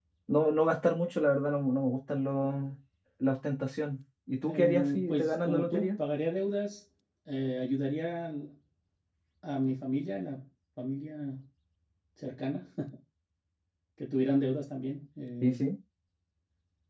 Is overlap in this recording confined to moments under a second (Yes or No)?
No